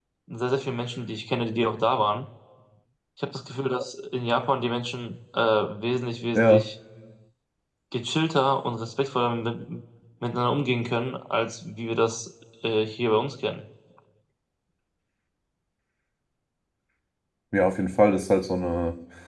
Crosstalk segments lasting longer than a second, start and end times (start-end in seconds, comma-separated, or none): none